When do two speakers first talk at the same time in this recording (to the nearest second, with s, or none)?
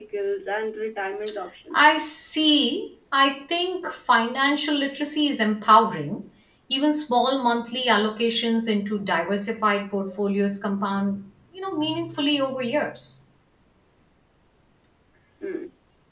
none